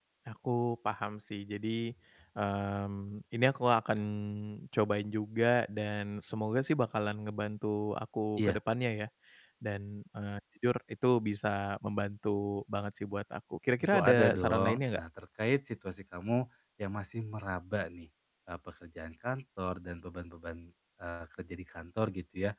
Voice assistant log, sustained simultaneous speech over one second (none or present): present